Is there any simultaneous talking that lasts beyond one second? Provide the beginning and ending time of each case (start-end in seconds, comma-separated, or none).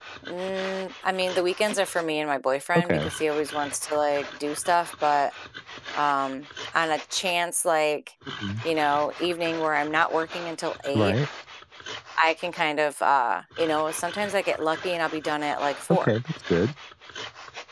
none